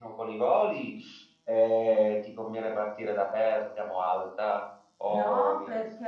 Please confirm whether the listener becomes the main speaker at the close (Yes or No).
Yes